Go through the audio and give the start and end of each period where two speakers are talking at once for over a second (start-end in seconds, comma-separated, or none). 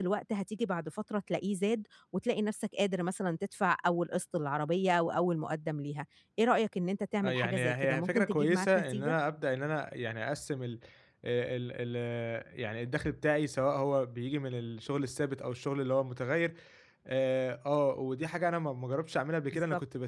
7.2-9.2